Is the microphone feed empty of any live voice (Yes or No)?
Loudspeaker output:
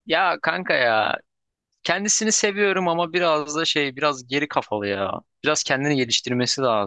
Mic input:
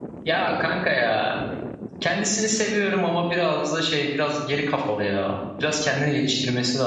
Yes